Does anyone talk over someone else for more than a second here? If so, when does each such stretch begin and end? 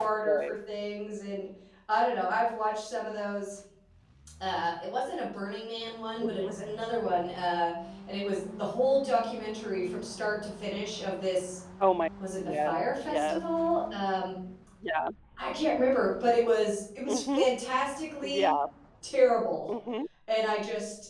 12.4-13.6

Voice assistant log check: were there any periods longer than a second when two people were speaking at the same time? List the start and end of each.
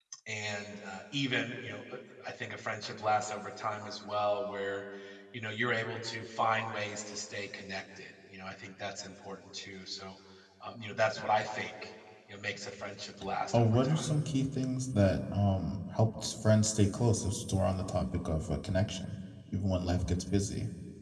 none

